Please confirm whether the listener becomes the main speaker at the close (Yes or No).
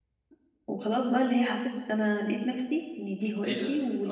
Yes